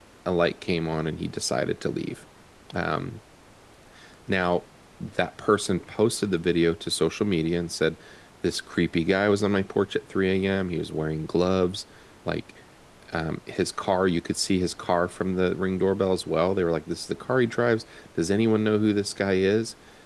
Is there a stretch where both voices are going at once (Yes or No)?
No